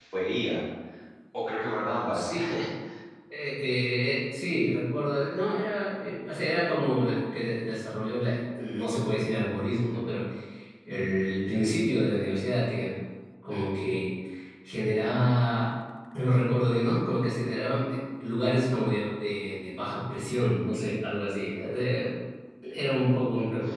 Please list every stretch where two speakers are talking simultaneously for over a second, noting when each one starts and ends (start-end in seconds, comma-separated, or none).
none